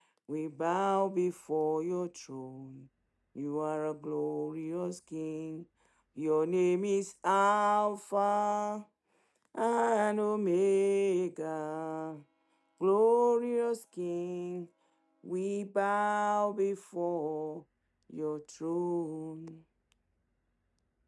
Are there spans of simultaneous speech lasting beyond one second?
No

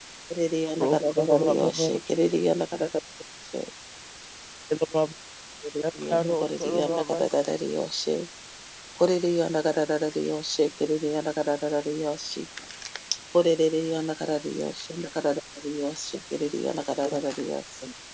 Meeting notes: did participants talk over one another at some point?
Yes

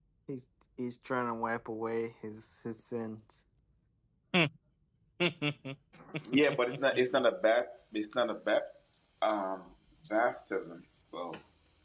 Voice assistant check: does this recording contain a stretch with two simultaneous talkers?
No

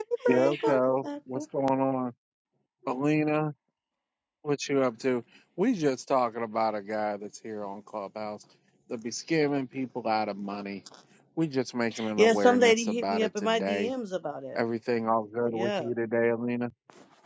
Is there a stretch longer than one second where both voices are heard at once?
Yes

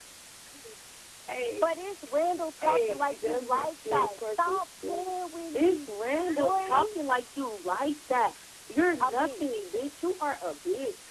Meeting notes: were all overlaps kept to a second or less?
No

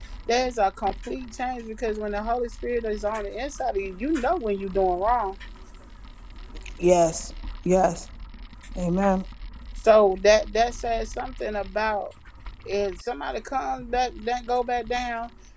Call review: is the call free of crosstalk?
Yes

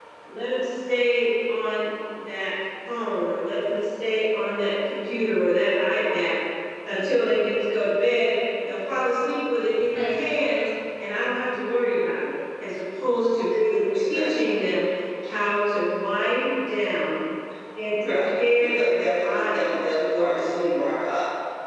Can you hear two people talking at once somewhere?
Yes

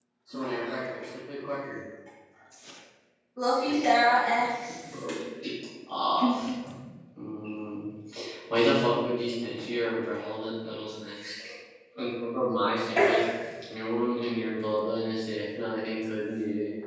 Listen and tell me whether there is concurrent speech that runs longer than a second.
No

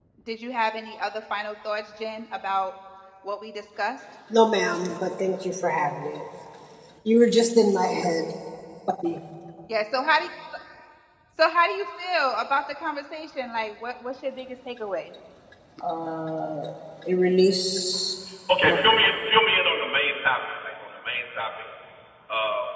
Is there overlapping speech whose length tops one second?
No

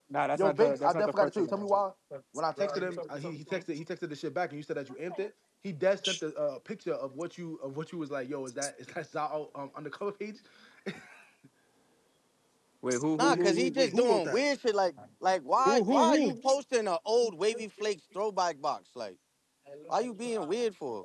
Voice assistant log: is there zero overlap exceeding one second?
No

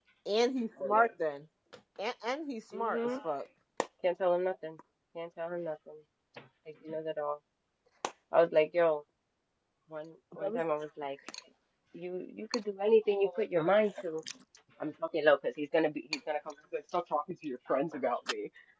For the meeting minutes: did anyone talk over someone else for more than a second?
No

